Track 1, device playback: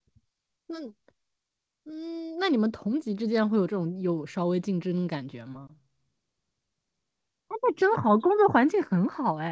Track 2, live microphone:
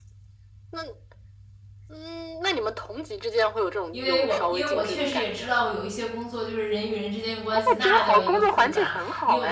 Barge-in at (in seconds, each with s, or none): 3.9 s